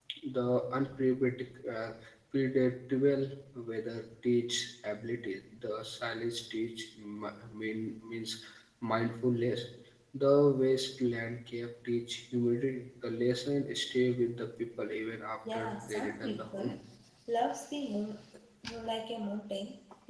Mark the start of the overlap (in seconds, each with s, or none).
15.4 s